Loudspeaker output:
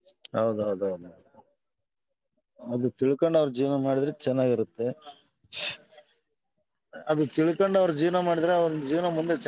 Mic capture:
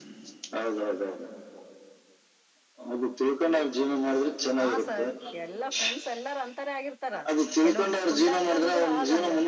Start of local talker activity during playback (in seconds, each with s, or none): 4.6 s